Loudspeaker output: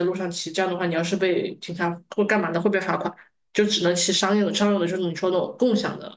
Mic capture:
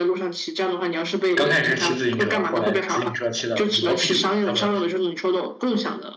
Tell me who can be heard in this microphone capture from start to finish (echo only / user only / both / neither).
both